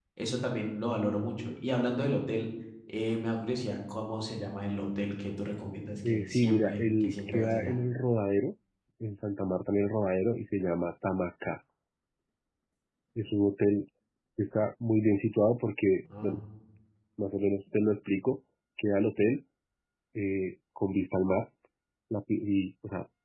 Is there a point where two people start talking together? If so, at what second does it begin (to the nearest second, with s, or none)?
6 s